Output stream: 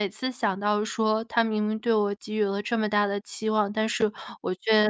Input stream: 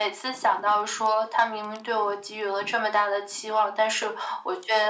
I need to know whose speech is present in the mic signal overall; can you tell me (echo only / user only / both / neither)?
echo only